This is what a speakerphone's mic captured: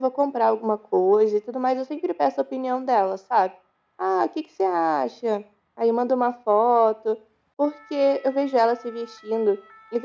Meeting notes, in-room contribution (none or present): none